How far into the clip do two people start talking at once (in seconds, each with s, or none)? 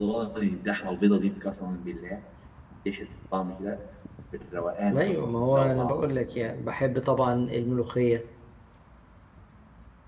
4.9 s